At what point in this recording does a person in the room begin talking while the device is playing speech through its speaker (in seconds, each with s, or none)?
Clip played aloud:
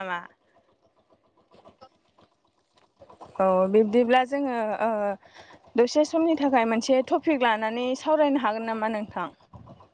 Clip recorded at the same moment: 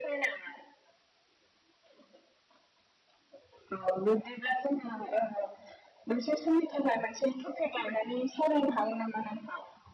none